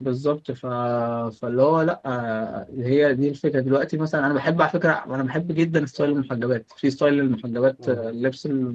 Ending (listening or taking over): listening